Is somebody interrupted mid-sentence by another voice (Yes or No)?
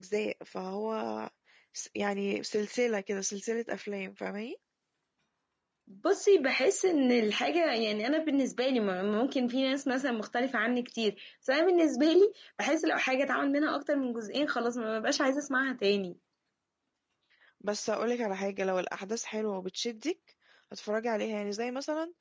No